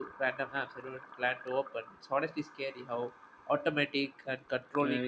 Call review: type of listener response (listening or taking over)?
taking over